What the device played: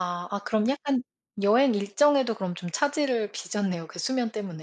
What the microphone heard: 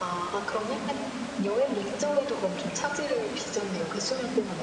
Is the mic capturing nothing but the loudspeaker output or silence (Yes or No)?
Yes